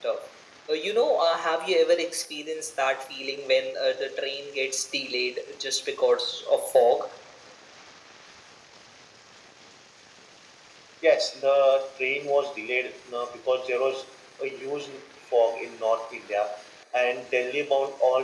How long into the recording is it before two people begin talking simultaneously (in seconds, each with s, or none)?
none